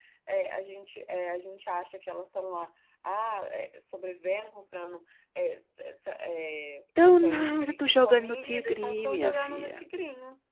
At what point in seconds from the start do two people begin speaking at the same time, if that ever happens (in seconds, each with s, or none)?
7.0 s